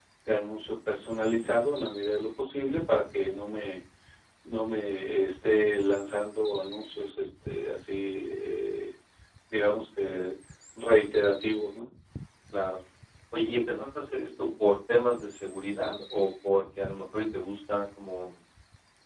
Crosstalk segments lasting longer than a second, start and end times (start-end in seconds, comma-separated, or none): none